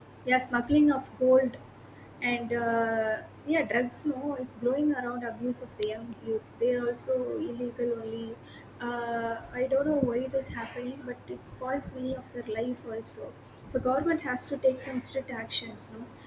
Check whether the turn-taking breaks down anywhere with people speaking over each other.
No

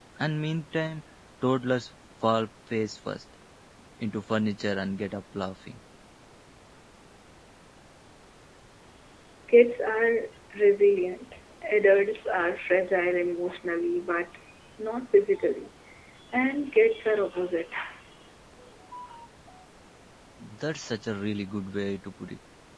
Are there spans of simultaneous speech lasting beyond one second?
No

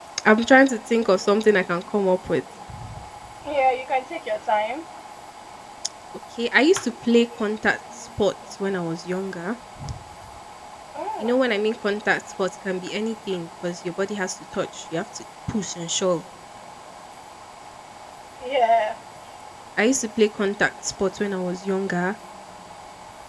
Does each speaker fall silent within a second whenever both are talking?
Yes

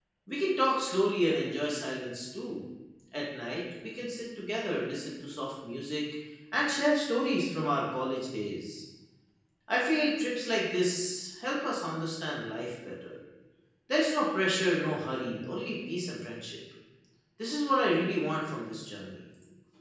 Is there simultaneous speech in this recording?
No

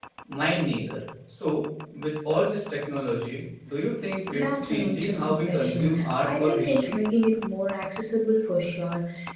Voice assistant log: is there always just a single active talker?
No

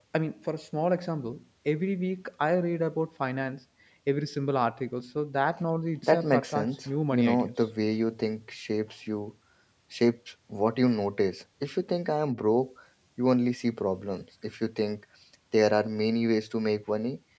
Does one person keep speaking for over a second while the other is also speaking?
Yes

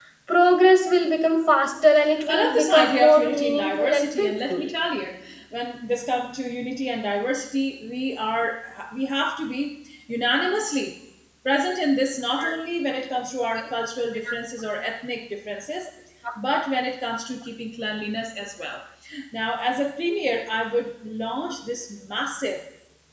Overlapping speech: Yes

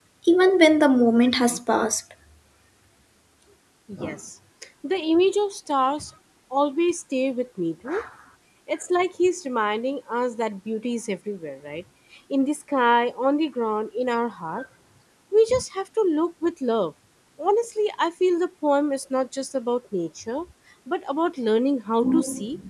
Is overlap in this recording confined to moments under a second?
Yes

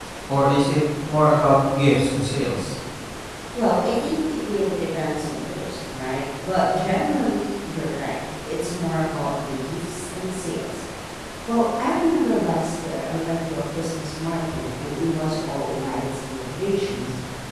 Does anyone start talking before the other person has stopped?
No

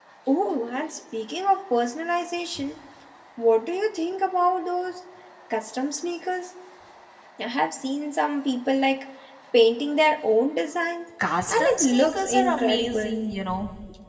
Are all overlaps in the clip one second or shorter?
No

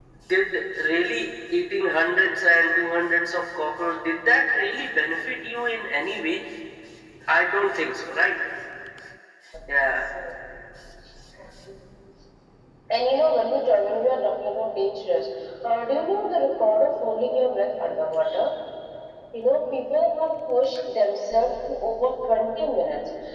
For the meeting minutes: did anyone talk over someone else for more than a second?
No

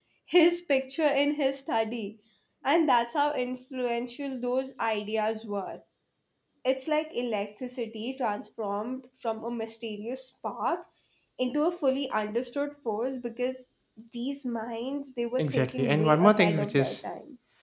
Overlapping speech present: Yes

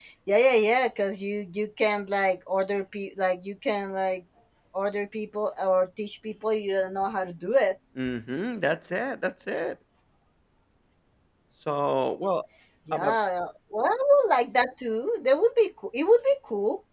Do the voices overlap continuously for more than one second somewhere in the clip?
No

